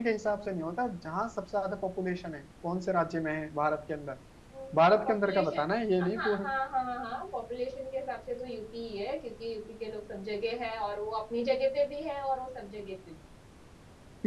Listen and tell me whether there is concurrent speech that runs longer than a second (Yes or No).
No